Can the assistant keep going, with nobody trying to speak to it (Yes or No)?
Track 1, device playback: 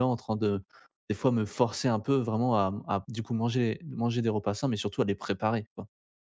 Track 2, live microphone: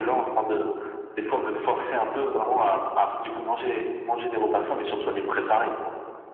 Yes